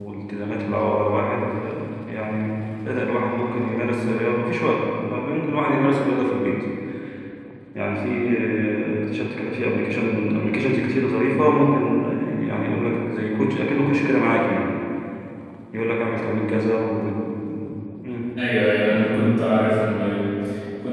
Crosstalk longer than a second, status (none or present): none